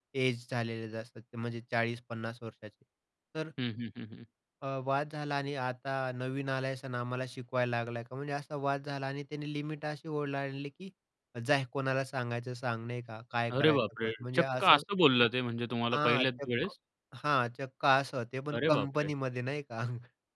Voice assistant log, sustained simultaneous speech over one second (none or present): present